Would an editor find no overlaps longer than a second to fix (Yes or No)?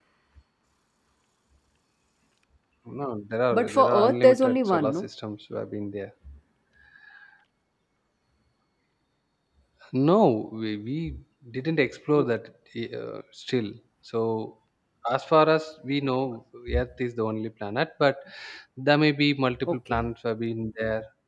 No